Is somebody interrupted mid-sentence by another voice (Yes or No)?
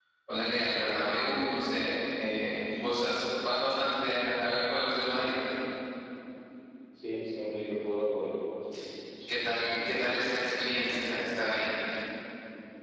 Yes